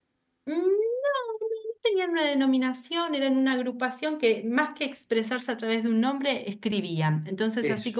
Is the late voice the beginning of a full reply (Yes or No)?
No